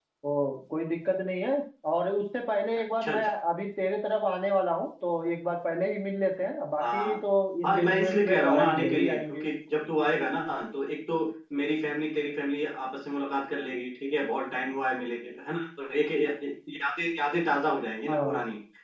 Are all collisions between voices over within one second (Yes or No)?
No